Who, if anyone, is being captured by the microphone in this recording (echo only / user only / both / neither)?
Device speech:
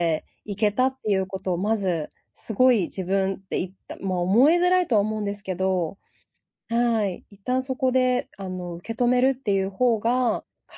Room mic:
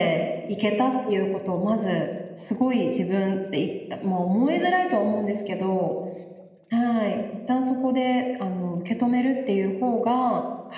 echo only